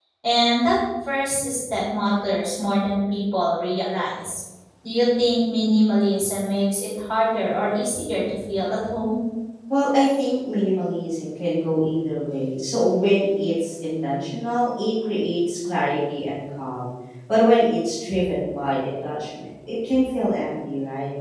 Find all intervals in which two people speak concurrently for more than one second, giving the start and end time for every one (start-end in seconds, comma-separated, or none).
none